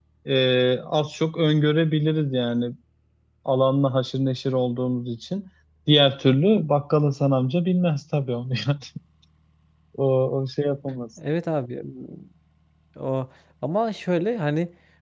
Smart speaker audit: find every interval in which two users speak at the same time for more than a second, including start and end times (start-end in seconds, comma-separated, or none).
none